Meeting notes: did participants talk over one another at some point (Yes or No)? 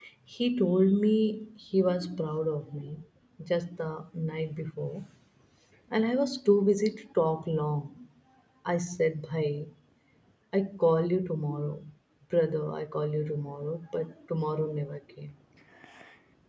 No